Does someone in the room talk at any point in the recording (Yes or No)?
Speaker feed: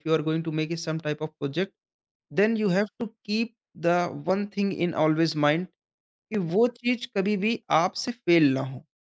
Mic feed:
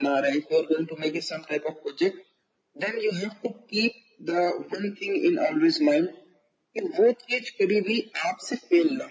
No